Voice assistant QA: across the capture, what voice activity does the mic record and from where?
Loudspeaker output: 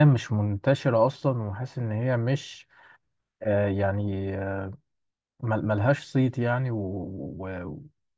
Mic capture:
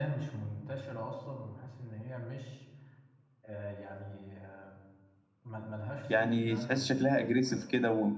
both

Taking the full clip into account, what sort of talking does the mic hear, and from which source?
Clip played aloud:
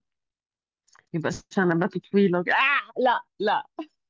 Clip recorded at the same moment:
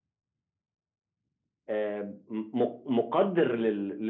user only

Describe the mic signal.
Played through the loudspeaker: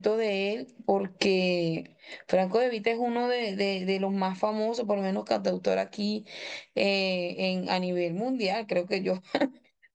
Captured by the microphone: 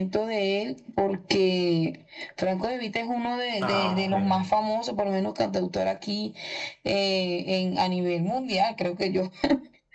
both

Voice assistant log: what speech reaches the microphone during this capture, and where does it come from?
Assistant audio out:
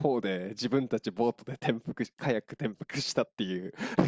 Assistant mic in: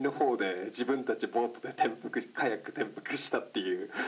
echo only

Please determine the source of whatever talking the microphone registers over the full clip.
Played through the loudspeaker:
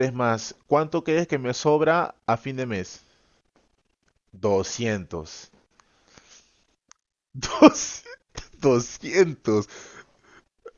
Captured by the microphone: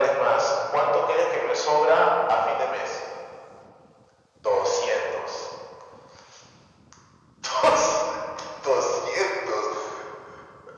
echo only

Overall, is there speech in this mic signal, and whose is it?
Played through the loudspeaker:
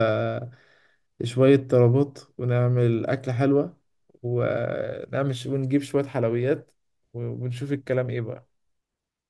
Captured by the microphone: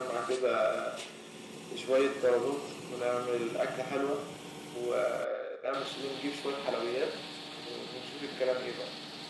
echo only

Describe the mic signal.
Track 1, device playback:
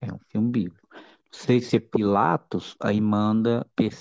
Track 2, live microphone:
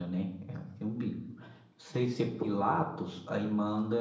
echo only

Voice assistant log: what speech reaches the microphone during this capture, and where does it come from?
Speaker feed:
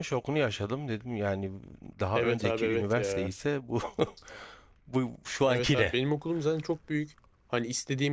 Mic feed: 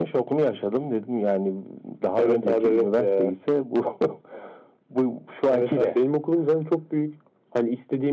echo only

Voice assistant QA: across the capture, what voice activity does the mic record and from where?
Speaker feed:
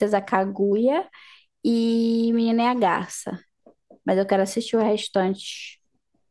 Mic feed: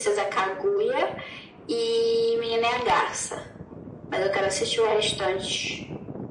echo only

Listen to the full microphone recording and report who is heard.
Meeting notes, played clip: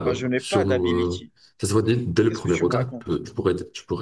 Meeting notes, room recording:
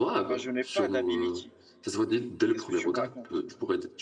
echo only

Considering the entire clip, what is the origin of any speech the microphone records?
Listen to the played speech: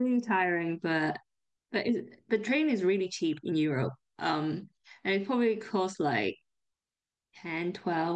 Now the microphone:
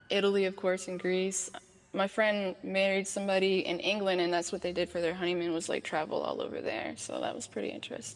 user only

